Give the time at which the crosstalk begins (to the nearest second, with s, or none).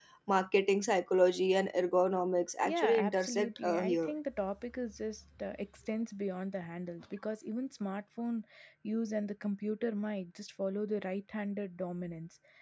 3 s